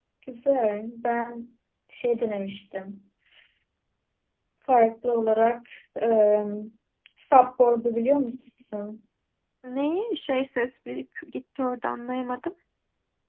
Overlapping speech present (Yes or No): No